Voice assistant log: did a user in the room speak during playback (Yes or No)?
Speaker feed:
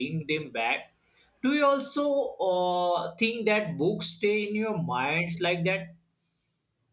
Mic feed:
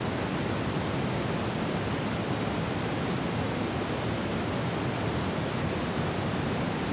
No